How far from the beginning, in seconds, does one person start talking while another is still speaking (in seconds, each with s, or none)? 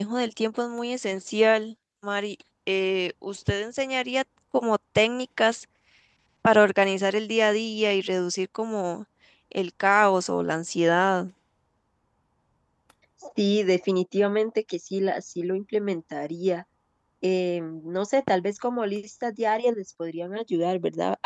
none